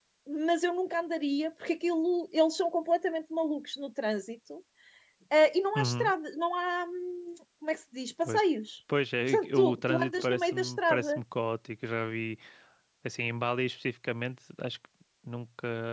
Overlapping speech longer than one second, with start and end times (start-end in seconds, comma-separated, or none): 9.3-11.2